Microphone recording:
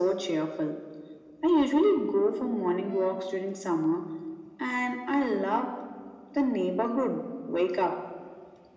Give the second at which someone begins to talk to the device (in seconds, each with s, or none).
none